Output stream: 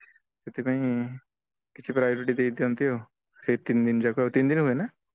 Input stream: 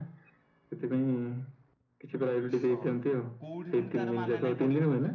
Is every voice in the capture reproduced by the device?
No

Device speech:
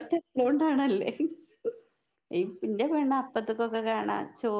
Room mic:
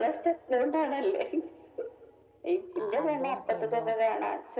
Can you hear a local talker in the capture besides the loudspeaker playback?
Yes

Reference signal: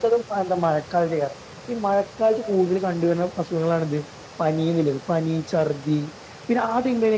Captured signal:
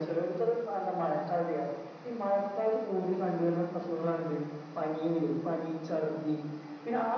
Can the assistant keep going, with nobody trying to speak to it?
Yes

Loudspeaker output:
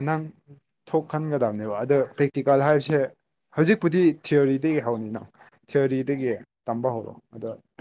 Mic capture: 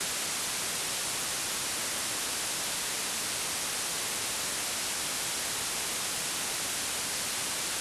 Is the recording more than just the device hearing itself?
No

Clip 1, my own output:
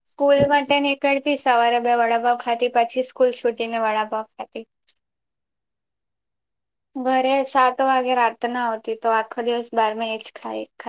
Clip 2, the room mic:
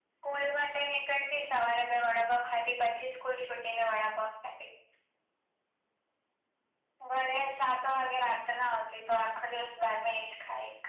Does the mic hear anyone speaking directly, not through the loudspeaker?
No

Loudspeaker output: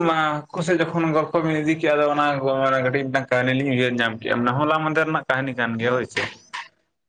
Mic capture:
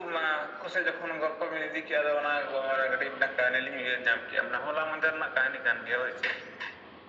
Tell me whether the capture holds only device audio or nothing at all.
Yes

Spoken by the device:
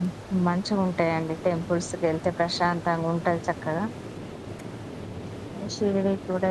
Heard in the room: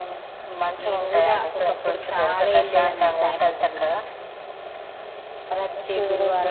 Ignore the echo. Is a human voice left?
Yes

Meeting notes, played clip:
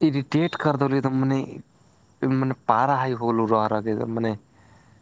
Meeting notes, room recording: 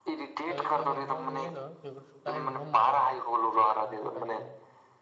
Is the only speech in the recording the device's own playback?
No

